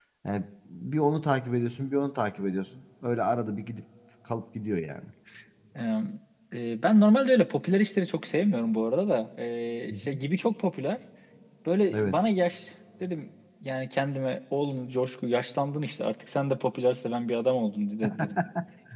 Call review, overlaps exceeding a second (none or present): none